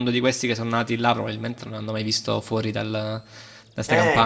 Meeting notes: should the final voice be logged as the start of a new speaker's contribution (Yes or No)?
Yes